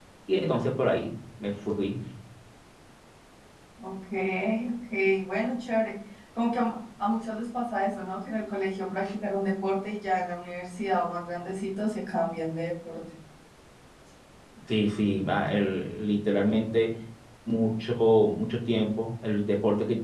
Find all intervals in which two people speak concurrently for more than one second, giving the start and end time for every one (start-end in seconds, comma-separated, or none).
none